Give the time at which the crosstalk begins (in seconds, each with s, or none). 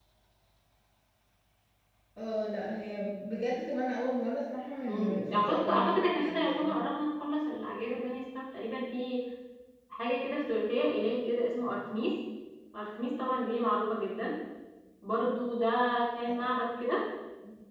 4.9 s